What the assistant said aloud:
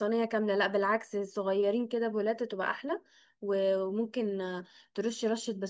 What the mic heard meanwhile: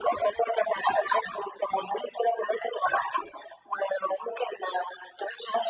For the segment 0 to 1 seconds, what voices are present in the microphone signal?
echo only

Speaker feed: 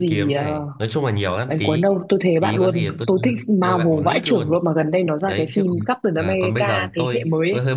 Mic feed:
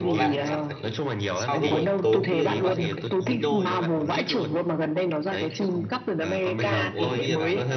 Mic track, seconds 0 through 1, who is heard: both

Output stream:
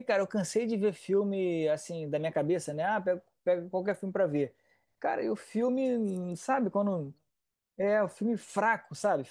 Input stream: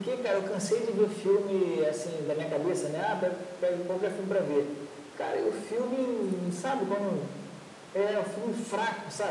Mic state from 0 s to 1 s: echo only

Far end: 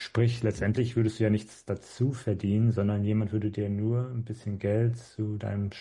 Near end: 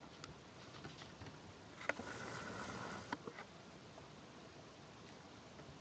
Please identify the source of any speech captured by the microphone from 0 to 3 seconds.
neither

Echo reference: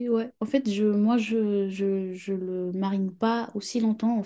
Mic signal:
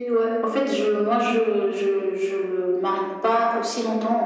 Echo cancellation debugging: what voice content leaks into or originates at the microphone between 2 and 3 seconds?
echo only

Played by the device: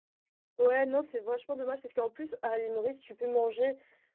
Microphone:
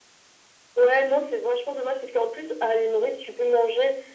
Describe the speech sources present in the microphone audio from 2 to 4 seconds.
echo only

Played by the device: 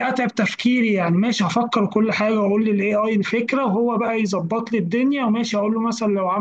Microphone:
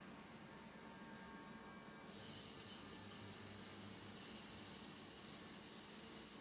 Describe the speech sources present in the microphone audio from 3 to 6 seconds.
neither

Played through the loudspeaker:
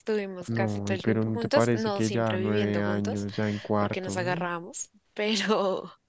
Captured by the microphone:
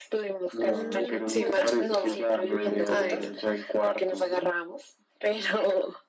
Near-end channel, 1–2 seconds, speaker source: both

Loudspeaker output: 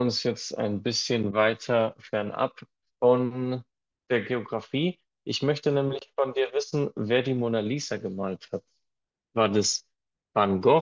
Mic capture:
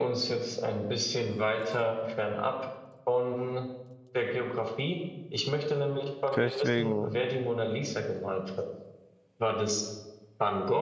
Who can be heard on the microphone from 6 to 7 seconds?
both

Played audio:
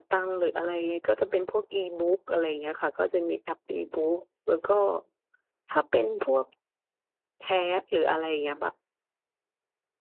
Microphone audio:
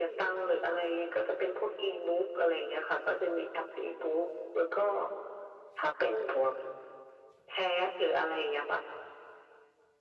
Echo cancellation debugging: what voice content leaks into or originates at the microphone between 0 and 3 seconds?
echo only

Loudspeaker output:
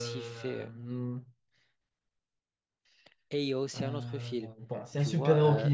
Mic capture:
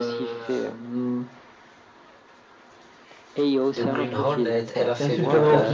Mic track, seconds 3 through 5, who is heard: both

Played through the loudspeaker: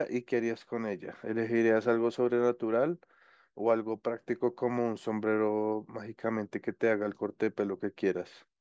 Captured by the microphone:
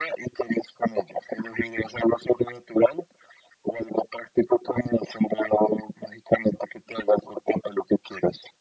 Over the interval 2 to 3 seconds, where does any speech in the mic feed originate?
echo only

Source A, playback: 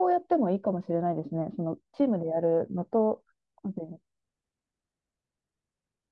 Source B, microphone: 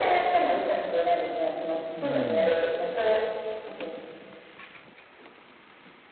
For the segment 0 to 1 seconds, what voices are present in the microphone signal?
echo only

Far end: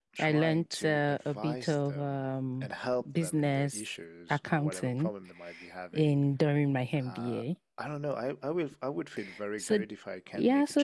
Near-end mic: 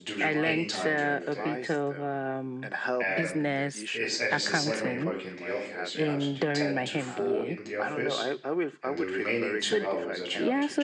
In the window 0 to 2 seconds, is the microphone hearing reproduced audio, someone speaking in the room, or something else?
both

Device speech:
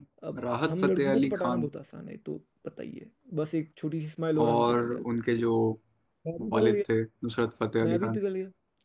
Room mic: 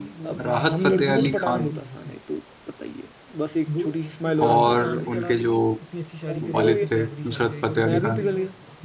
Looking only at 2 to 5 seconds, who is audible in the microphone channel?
both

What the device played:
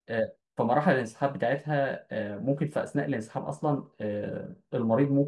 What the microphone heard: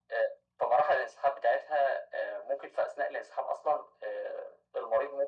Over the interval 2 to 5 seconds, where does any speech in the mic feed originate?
echo only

